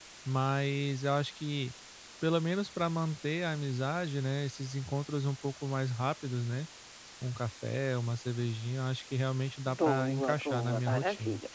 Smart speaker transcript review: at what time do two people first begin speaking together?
9.6 s

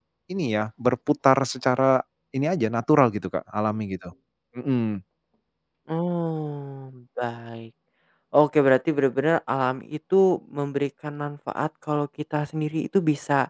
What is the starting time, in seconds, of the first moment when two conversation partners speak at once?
none

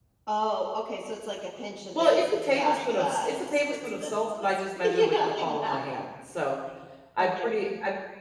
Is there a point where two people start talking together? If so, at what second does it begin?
1.9 s

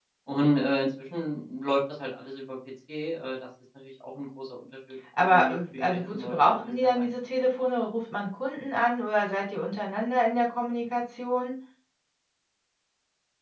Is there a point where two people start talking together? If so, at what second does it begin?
5.1 s

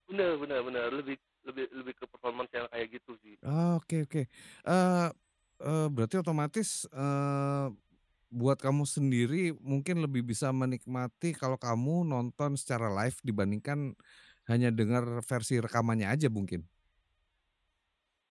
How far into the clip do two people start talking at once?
none

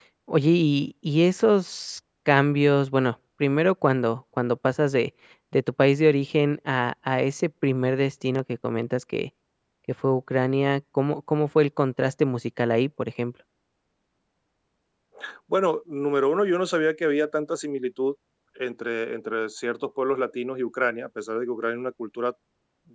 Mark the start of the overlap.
none

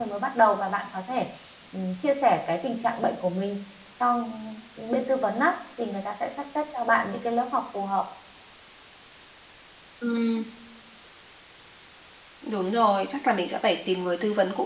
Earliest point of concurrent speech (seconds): none

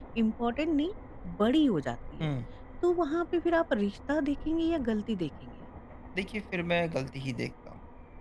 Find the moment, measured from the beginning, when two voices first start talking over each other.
none

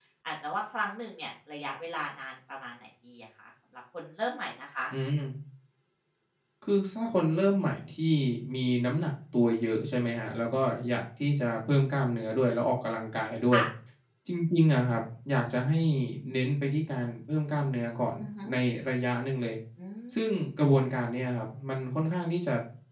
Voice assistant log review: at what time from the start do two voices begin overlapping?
none

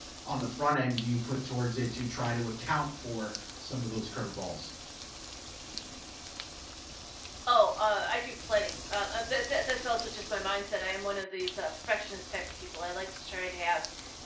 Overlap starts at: none

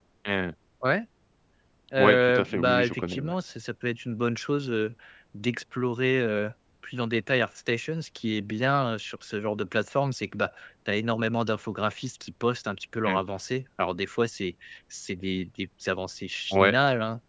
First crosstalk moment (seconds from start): 2.0 s

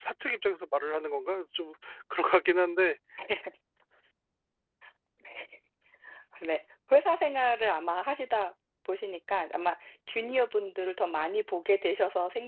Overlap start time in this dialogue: none

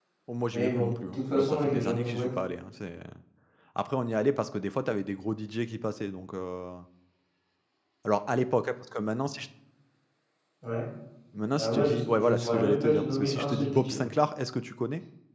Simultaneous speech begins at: 0.5 s

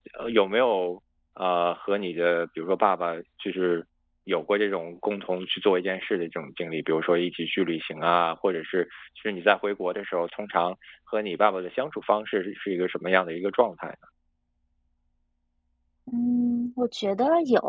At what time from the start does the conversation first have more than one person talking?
none

